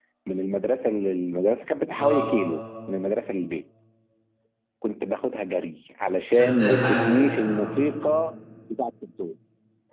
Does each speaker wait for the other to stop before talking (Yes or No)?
No